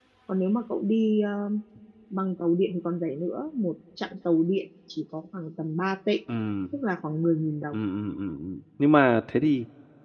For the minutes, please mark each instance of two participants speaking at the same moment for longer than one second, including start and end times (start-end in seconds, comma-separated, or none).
none